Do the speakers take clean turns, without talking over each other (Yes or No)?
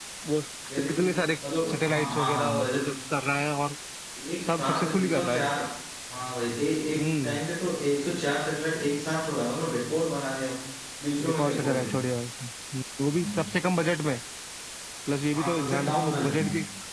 No